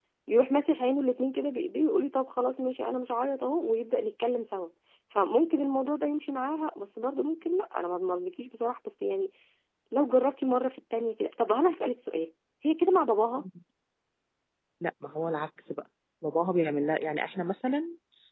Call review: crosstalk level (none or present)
none